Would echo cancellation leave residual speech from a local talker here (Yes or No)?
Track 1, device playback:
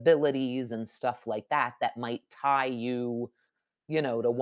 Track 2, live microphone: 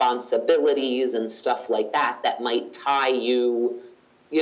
No